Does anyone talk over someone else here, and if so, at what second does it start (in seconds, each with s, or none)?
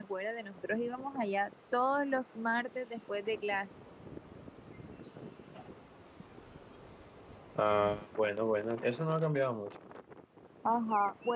none